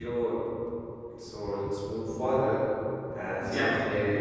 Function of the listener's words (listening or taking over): taking over